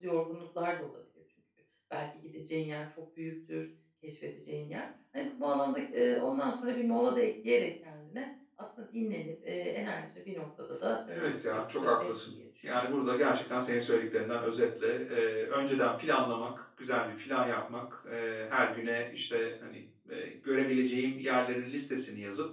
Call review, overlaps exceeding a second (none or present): present